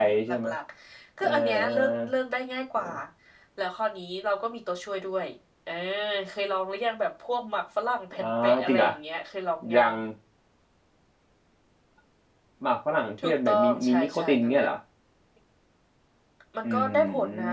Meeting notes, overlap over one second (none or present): present